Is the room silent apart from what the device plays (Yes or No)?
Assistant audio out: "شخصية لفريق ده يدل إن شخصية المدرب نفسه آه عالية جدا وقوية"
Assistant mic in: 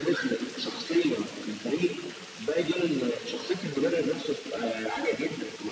Yes